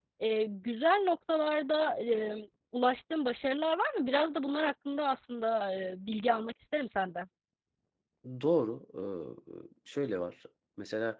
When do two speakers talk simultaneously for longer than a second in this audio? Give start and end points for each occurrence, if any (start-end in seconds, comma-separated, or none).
none